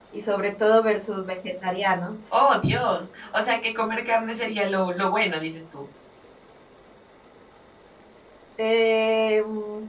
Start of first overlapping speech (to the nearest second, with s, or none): none